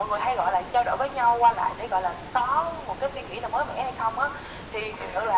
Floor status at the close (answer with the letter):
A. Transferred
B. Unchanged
B